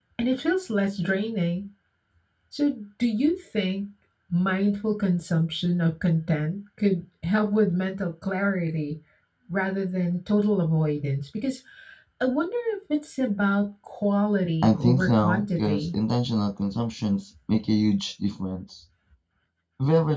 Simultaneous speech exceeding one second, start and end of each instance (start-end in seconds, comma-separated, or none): 14.6-15.9